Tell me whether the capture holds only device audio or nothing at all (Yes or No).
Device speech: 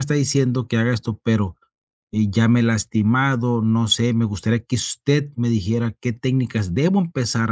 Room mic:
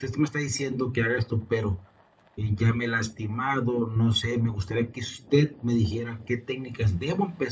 Yes